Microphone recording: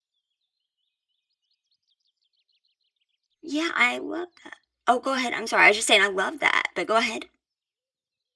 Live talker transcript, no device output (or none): Yeah, I love that. Oh, go ahead. I'm sorry. I was just saying I love that, but go ahead.